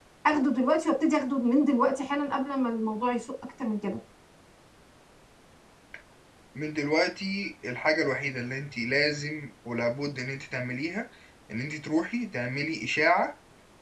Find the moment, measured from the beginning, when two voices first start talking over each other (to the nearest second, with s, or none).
none